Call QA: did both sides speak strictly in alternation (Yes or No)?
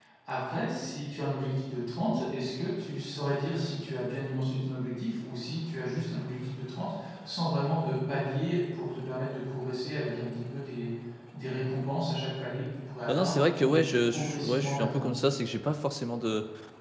No